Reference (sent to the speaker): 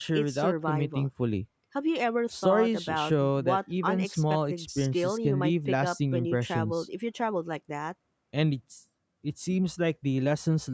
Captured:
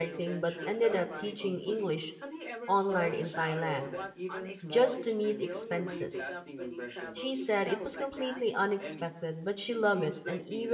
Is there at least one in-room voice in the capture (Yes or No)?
Yes